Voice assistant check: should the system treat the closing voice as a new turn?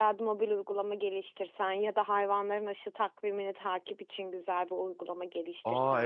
Yes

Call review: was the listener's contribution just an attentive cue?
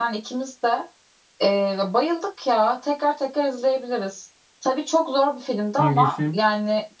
Yes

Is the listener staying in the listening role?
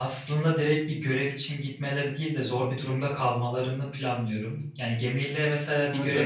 Yes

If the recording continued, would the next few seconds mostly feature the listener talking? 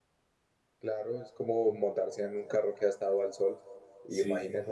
No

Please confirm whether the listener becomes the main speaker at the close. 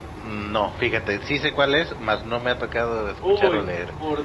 Yes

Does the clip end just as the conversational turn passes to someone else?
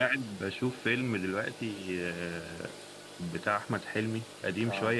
No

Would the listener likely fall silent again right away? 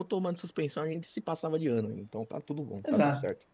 No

